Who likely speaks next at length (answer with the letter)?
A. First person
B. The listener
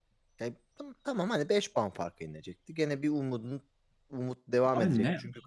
B